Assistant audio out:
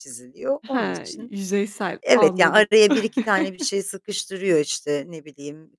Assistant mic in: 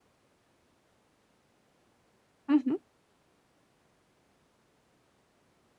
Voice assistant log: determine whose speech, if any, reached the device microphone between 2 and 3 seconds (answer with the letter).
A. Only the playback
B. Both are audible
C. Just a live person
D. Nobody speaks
C